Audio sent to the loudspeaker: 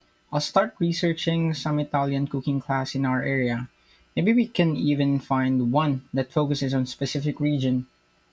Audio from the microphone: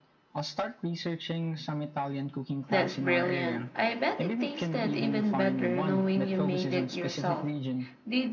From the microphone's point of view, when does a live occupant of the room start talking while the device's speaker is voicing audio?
2.7 s

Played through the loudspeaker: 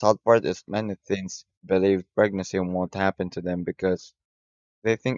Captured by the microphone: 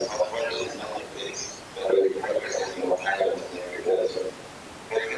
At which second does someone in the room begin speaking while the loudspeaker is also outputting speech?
none

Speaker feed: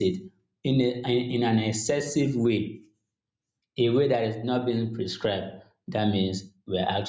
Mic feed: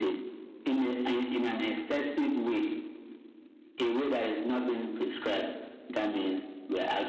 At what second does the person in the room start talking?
none

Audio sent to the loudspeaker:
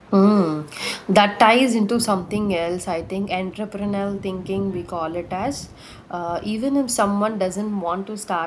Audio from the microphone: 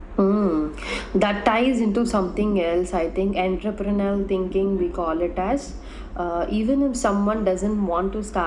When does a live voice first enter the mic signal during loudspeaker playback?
none

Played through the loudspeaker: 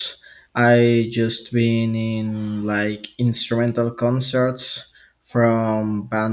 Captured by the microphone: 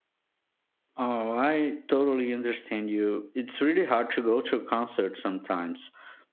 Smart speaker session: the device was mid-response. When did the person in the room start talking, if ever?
1.0 s

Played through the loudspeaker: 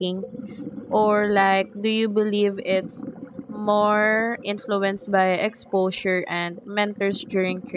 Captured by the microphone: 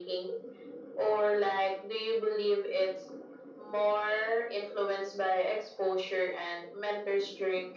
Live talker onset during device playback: none

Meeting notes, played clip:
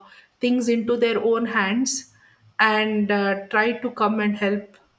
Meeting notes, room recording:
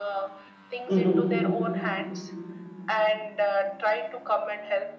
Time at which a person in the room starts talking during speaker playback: 0.9 s

